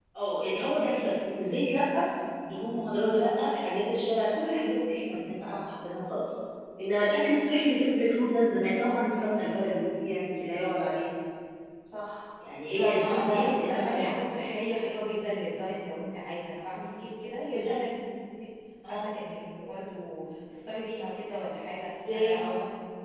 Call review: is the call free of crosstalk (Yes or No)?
No